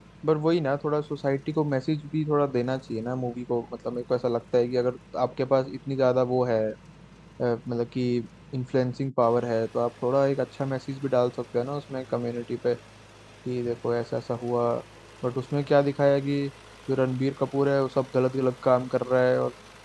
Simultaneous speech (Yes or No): No